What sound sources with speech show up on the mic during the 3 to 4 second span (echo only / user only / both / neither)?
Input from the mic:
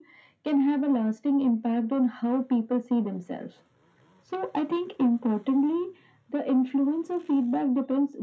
echo only